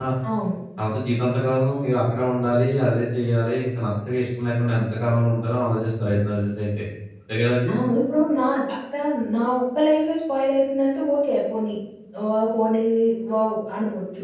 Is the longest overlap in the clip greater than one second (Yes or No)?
No